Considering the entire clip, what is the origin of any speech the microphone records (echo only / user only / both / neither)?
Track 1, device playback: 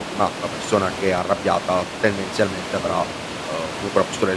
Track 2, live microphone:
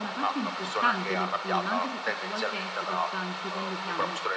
both